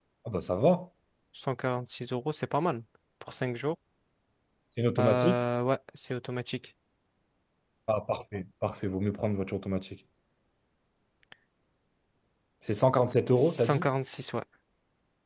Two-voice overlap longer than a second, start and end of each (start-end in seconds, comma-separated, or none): none